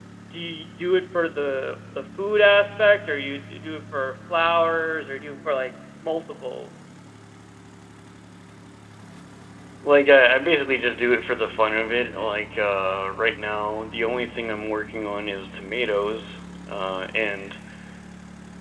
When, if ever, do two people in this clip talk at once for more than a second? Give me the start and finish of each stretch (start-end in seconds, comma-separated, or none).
none